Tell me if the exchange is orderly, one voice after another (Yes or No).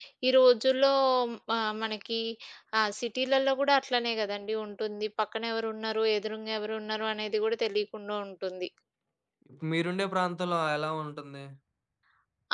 Yes